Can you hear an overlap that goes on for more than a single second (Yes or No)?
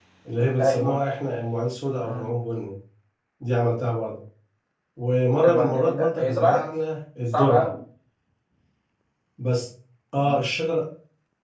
Yes